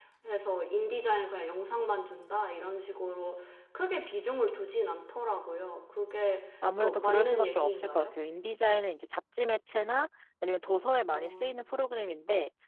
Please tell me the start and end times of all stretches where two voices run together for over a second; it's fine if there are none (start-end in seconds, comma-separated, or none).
6.8-8.1